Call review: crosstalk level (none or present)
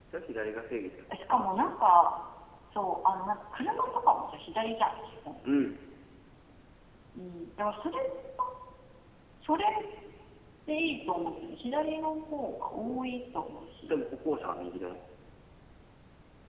none